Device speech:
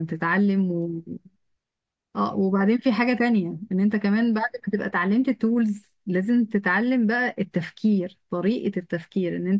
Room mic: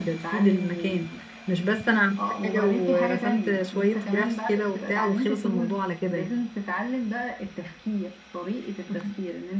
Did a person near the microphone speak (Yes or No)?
Yes